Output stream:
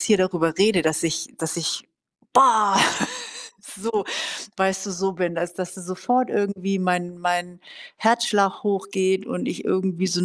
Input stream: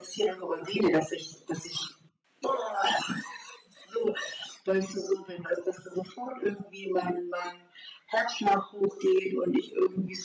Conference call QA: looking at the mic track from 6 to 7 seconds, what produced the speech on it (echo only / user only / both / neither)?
echo only